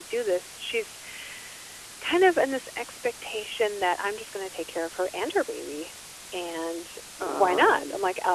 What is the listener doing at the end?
listening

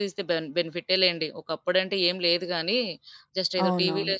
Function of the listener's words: listening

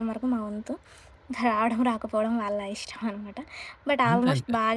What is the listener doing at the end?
listening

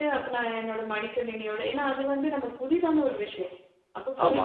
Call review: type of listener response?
listening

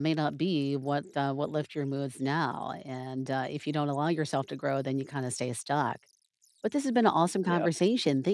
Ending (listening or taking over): listening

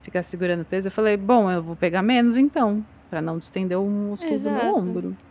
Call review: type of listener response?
taking over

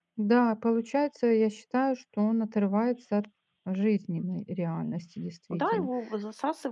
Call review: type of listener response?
taking over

